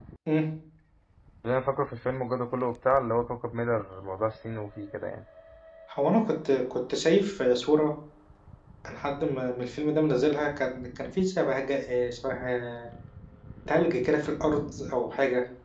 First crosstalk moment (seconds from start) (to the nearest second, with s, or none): none